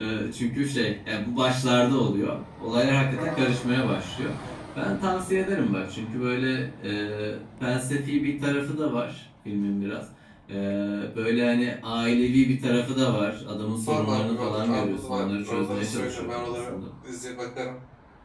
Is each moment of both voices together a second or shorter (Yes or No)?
No